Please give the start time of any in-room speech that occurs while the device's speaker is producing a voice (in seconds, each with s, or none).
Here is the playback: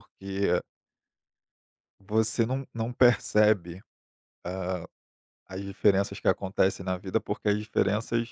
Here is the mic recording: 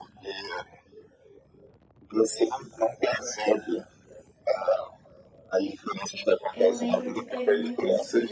6.5 s